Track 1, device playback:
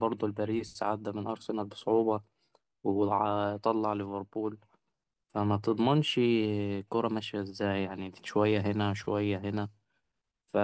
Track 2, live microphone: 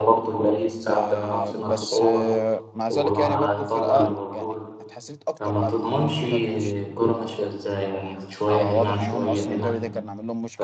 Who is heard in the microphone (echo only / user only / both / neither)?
both